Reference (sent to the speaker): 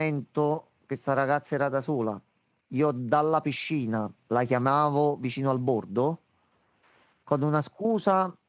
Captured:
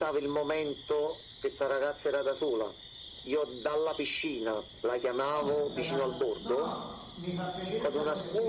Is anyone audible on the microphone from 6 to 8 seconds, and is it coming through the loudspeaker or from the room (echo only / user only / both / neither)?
both